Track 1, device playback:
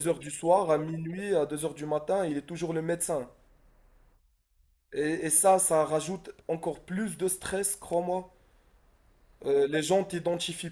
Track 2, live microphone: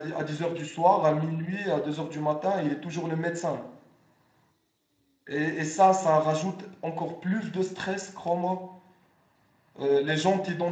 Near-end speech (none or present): none